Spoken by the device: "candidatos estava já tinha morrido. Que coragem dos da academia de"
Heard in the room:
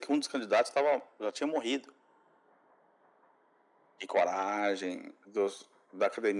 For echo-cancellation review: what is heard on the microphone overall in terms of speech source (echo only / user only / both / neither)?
echo only